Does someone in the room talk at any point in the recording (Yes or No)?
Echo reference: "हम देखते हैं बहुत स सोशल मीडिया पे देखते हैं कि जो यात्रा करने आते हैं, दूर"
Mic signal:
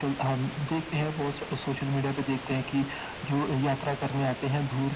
No